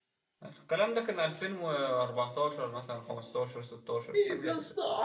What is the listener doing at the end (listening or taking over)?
taking over